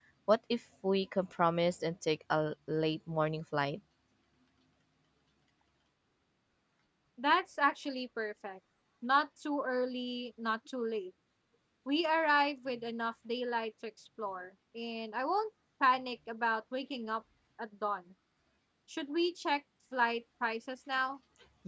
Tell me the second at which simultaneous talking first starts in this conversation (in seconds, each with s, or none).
none